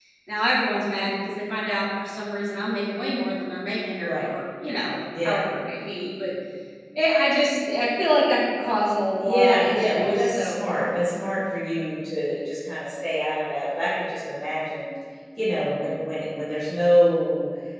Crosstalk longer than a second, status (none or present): present